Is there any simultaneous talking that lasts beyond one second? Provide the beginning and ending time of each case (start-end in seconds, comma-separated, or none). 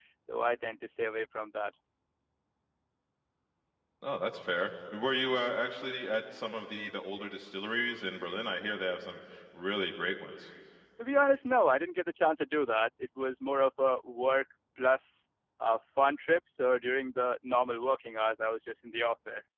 none